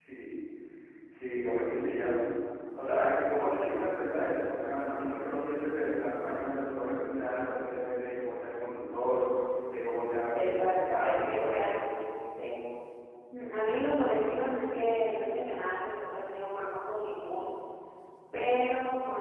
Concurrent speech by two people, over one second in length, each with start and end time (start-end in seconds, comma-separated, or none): 10.3-11.7